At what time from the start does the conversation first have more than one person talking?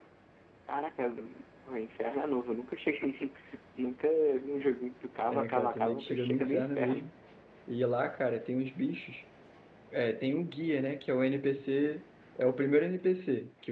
5 s

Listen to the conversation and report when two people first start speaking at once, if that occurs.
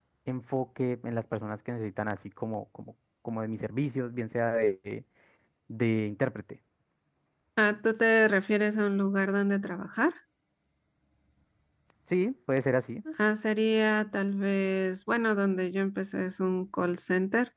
none

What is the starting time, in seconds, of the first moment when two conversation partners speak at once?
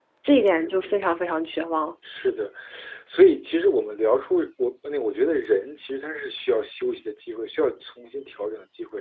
none

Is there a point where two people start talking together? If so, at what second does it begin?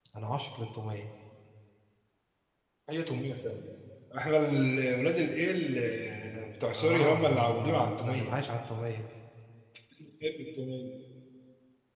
7 s

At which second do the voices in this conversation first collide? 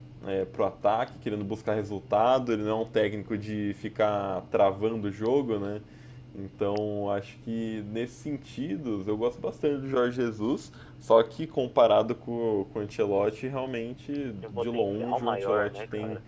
14 s

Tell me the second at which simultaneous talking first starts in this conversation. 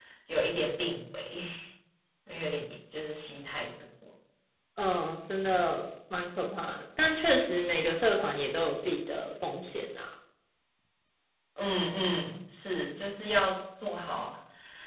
none

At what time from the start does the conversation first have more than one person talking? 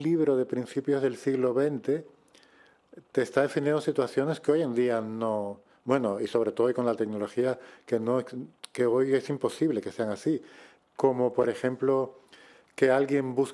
none

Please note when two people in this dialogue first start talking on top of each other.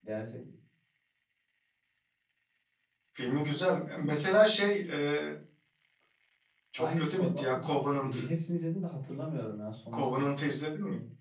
7 s

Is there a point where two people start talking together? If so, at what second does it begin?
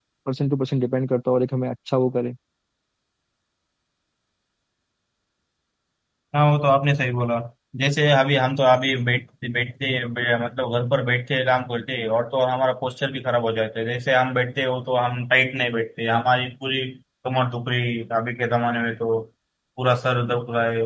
none

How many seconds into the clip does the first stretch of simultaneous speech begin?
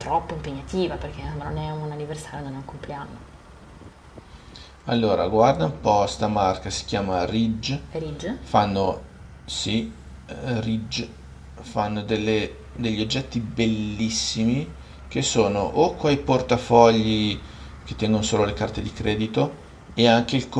none

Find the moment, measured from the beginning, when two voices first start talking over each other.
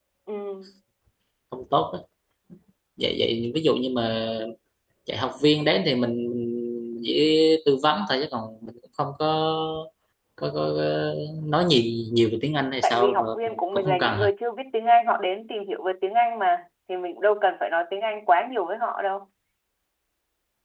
13 s

